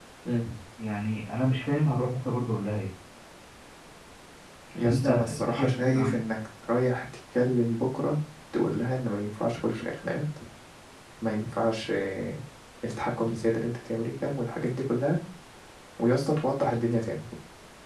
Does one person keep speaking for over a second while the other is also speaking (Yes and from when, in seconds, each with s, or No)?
Yes, from 4.8 s